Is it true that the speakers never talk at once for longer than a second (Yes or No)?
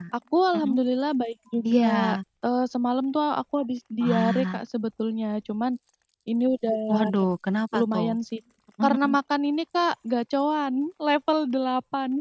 Yes